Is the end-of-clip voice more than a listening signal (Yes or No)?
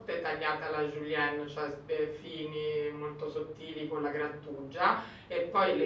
No